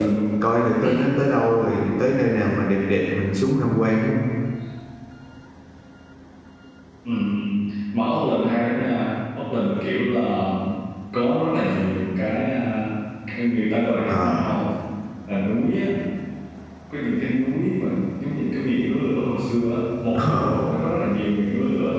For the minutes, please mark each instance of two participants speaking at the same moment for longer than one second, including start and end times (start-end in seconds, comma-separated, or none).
none